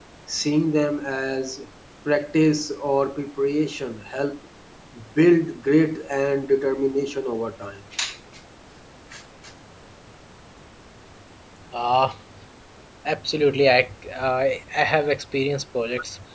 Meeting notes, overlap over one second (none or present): none